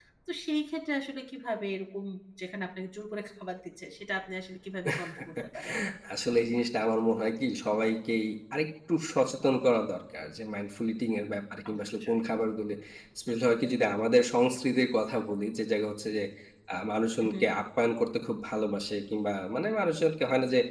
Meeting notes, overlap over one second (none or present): none